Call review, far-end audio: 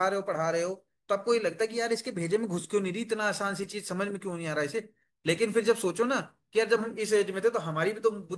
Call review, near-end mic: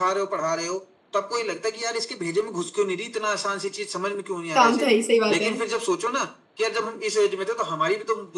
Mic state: both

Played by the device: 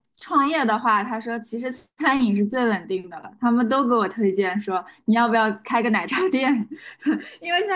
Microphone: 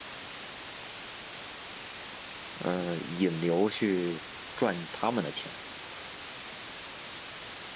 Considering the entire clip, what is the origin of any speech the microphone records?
user only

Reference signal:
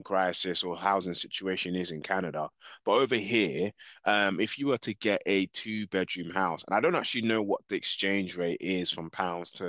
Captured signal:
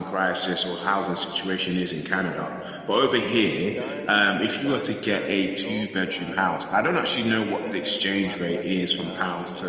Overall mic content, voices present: both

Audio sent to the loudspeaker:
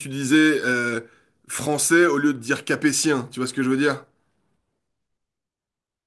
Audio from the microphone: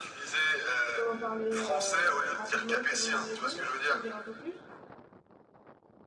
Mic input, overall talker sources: both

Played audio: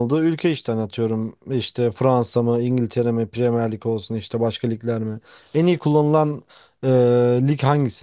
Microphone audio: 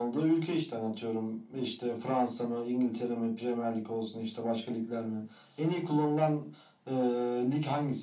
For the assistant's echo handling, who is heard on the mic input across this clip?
echo only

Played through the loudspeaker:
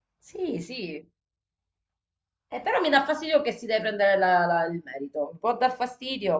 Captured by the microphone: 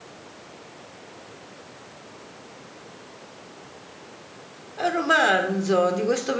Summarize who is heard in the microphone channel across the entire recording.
user only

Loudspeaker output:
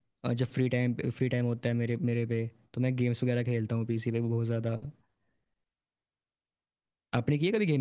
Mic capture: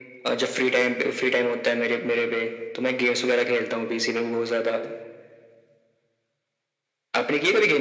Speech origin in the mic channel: echo only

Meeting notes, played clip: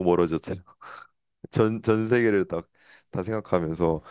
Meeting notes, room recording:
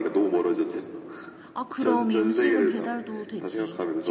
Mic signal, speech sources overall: both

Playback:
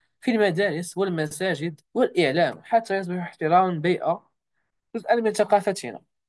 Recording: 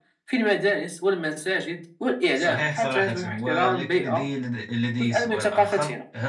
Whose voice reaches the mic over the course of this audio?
both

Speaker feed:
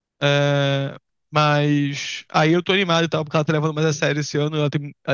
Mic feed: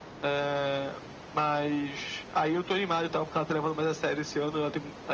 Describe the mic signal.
echo only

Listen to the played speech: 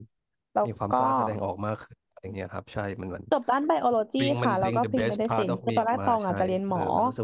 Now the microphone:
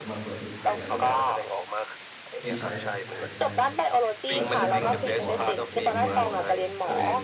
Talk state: both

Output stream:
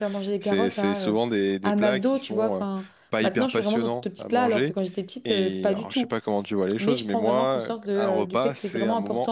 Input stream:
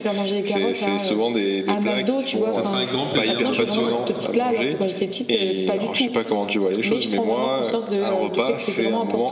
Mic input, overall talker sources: both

